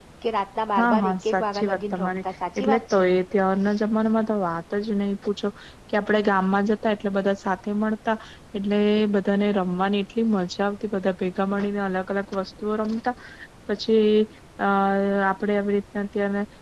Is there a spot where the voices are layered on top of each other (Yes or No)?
Yes